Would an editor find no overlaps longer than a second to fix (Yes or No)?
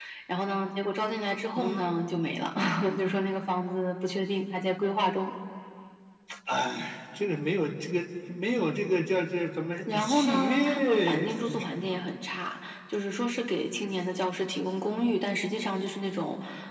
No